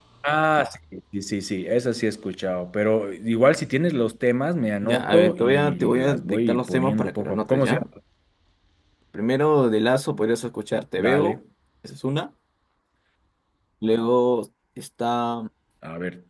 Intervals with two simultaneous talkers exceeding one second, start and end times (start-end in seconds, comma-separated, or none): 4.8-7.8